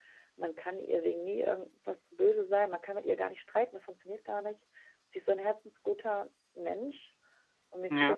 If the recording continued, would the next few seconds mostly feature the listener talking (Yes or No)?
No